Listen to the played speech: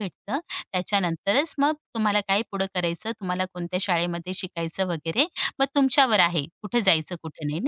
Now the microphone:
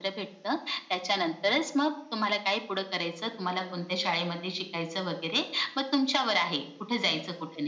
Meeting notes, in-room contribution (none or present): none